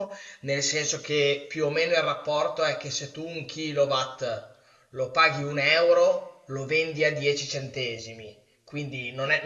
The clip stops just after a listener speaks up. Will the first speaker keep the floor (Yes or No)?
Yes